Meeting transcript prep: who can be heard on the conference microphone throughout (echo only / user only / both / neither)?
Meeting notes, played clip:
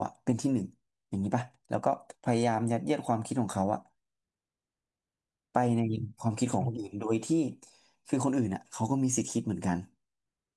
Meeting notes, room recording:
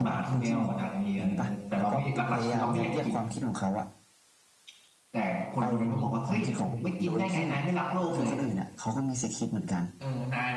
both